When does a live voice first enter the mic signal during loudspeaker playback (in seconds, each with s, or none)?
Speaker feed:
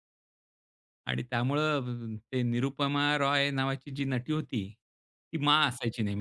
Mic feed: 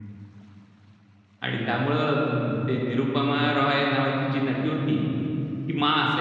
1.5 s